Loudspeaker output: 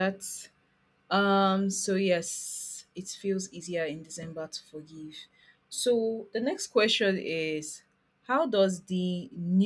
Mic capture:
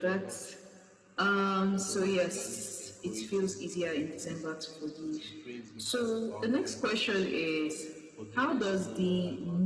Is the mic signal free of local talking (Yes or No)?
No